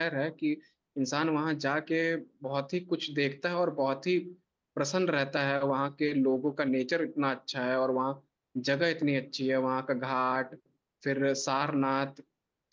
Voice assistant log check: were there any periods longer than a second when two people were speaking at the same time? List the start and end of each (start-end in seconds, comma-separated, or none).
none